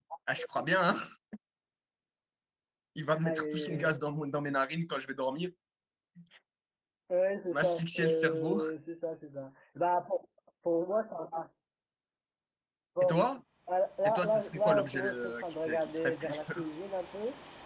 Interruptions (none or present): present